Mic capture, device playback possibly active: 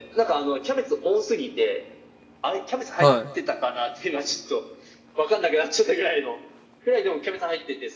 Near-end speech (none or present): present